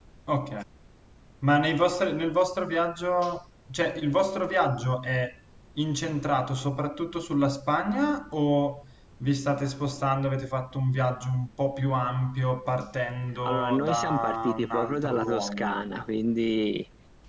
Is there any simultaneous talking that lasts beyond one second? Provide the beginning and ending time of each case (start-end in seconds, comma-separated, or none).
13.4-15.8